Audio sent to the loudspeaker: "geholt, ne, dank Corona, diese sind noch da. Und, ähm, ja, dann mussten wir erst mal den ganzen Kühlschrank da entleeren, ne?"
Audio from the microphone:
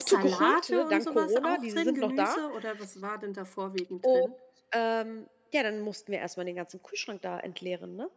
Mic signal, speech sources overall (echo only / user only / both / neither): both